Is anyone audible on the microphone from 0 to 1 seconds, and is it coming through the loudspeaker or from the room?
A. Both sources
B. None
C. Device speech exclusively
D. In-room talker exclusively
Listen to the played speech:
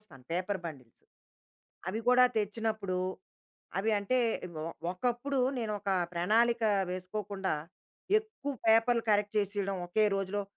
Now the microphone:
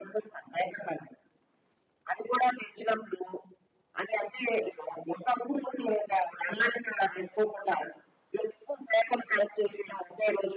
C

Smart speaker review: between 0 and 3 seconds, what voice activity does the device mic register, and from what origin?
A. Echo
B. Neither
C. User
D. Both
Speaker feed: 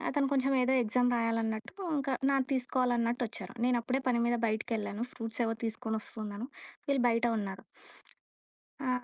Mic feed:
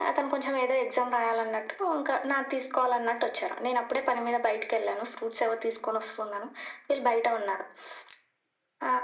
A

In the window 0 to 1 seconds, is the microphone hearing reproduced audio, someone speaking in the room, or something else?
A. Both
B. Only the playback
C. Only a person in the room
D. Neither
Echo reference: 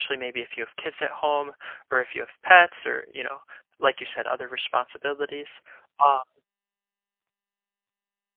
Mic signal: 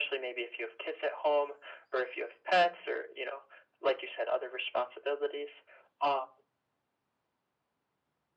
B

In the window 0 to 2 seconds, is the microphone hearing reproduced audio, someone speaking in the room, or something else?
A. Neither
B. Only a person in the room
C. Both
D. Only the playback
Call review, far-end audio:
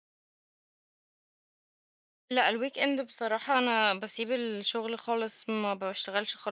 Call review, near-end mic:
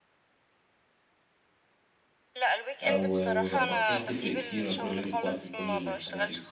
A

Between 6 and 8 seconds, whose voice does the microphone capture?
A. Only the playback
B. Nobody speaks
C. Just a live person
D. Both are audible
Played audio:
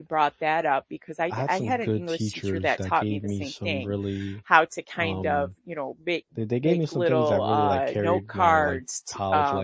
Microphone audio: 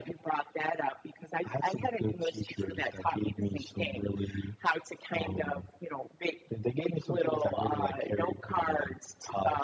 A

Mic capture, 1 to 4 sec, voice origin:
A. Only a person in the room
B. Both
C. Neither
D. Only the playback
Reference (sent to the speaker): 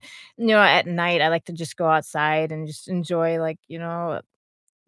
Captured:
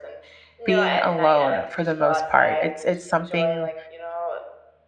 B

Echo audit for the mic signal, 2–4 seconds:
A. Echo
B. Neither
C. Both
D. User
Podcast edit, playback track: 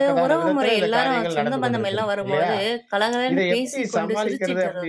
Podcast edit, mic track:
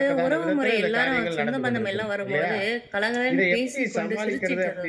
A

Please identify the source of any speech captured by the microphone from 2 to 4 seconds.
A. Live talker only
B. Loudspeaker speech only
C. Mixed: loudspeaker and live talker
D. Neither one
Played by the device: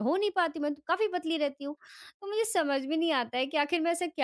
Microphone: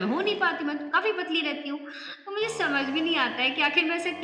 B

